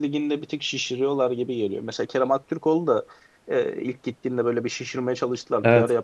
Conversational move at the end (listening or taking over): listening